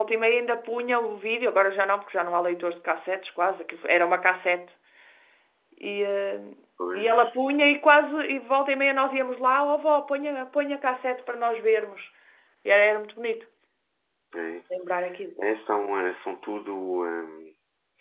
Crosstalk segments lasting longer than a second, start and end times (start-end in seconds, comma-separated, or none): none